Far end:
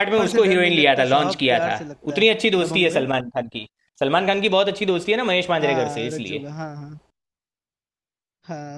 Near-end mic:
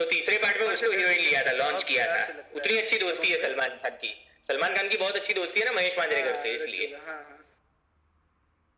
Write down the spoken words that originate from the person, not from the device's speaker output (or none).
none